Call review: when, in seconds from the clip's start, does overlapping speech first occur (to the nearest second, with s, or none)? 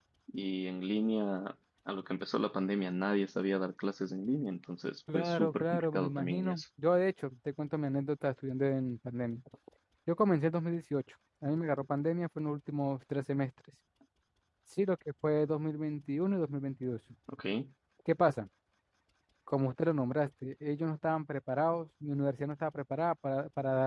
5 s